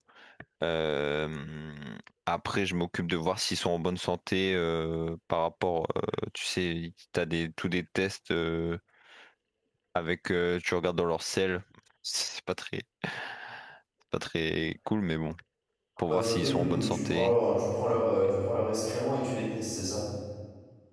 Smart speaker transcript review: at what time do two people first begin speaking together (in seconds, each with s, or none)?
16.1 s